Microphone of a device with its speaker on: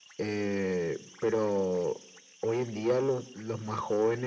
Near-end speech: none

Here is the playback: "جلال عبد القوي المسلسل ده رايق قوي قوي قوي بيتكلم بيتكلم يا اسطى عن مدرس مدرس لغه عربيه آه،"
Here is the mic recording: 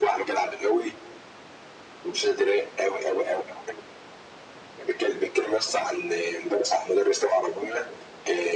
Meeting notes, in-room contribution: none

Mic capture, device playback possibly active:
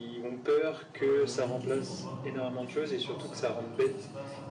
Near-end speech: present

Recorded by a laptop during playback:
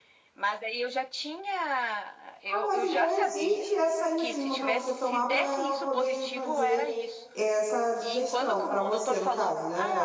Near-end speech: present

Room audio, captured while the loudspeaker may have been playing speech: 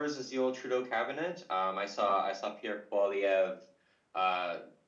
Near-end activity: none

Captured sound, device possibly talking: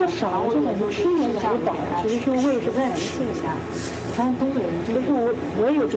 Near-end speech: none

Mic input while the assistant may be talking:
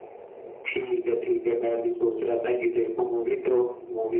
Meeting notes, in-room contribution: none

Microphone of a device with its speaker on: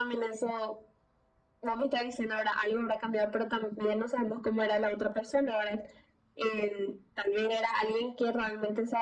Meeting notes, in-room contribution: none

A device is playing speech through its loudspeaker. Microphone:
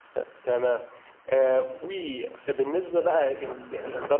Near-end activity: present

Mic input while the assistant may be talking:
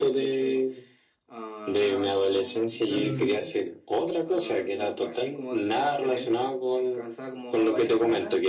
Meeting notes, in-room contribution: present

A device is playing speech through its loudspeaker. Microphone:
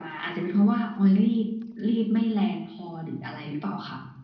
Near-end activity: none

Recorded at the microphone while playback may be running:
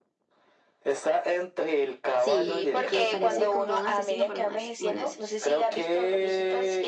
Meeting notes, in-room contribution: present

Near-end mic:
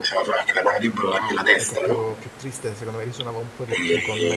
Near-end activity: present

